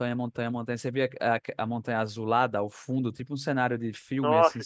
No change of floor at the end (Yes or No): No